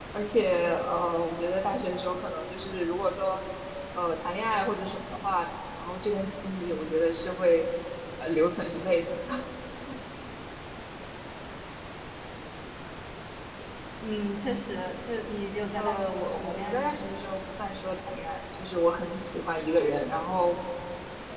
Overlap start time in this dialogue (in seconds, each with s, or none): 15.8 s